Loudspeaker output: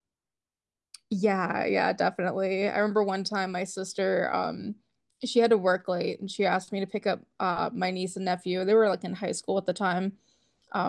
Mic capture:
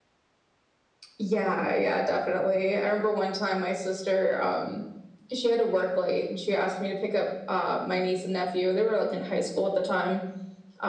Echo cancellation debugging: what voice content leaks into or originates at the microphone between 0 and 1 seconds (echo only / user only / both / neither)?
neither